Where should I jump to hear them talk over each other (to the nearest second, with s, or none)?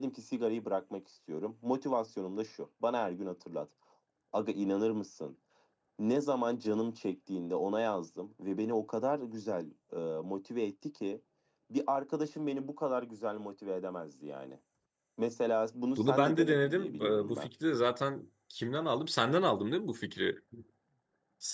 16 s